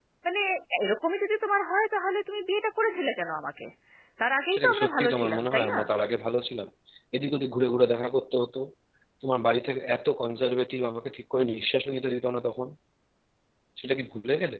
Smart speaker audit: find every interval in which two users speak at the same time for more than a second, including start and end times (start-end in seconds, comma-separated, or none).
4.5-5.8